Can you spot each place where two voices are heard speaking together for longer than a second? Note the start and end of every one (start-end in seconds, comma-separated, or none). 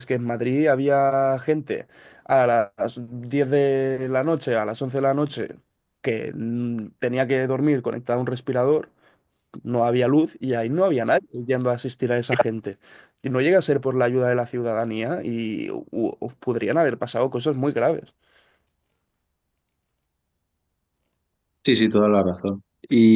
none